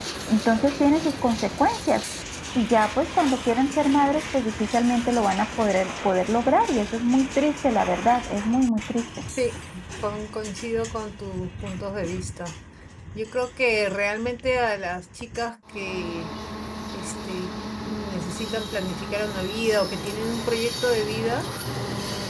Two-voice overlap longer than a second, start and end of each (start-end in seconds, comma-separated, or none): none